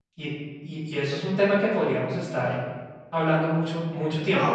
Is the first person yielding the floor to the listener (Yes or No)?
Yes